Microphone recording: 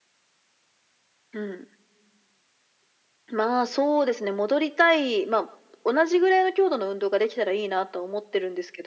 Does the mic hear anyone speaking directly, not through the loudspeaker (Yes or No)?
No